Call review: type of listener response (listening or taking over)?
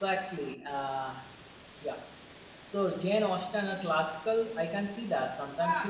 listening